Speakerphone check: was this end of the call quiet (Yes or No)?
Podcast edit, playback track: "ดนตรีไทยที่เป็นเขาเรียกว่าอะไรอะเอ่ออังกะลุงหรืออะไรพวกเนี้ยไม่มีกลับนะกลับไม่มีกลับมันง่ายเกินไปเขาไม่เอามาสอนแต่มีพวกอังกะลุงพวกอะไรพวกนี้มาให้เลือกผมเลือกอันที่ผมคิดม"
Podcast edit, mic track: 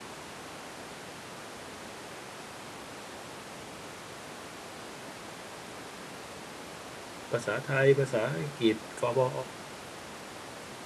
No